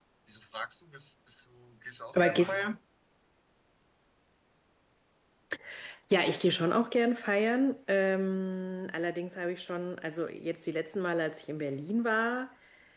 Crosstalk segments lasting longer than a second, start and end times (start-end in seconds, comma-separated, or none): none